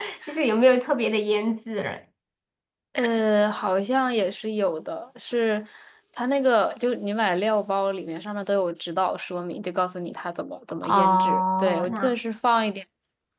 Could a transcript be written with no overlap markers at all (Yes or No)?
No